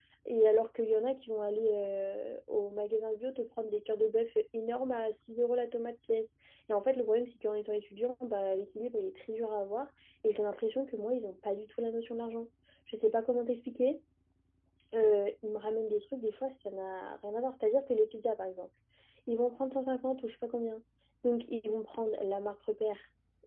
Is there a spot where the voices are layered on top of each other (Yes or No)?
No